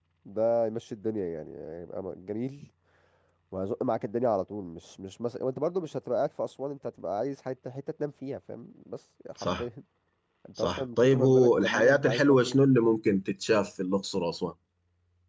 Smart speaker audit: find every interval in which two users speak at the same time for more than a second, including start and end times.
10.6-12.6

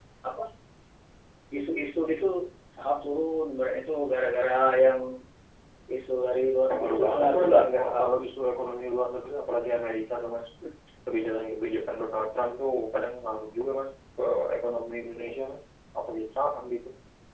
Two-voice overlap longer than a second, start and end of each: 6.7-8.1

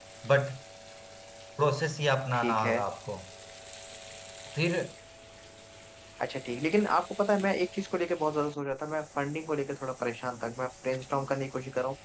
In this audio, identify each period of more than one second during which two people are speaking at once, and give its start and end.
none

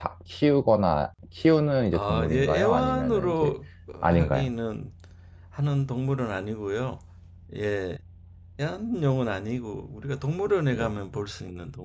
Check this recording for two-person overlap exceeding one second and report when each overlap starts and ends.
1.9-3.5

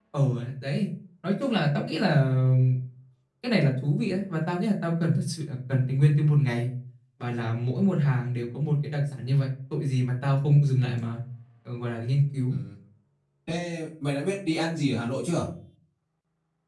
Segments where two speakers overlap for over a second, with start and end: none

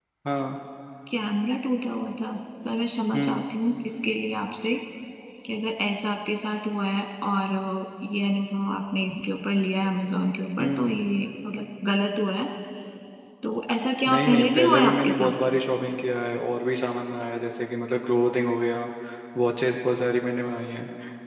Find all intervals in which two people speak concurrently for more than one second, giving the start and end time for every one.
14.1-15.3

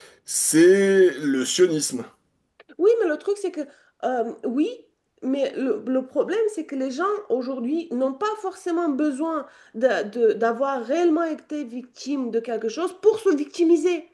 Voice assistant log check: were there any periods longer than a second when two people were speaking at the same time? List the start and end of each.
none

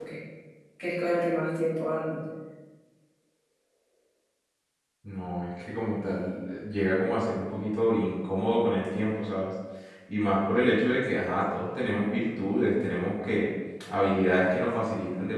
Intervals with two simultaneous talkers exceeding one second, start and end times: none

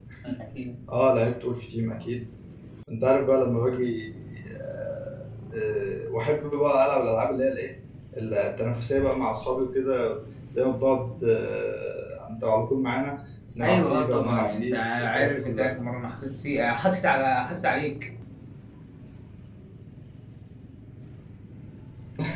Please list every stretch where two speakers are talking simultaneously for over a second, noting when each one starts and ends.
13.6-15.8

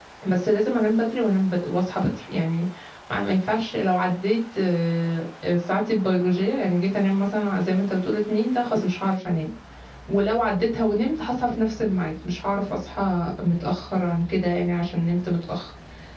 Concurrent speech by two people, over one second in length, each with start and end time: none

